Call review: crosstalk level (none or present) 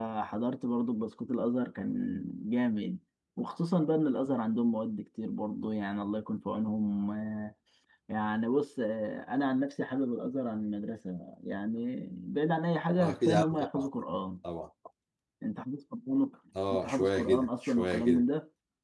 present